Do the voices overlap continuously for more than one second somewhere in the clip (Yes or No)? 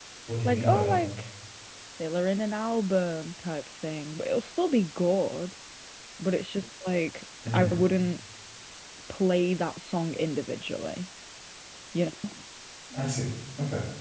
No